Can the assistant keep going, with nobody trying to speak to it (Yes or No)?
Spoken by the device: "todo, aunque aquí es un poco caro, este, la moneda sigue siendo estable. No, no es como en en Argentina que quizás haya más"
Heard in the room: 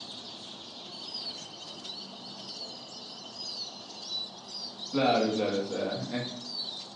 No